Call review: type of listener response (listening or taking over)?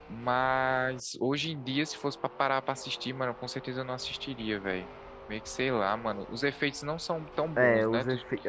taking over